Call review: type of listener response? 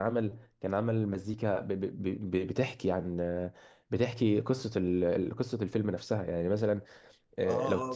taking over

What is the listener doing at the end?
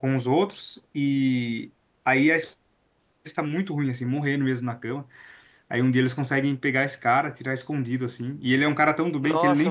taking over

